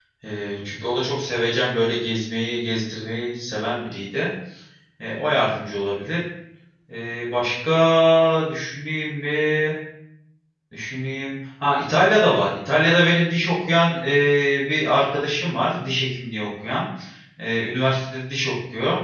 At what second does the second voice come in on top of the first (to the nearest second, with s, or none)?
none